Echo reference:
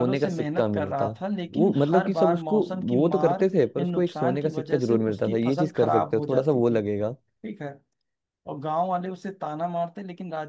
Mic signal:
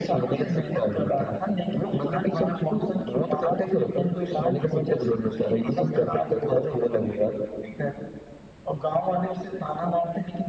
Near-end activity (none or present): none